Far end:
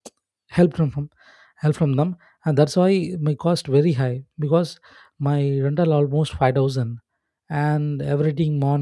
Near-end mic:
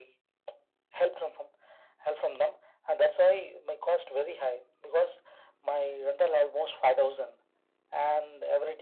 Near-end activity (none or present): none